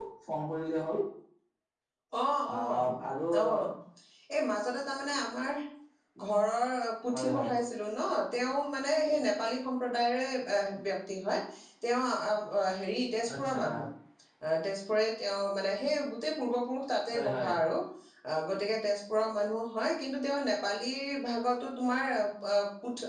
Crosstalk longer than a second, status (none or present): none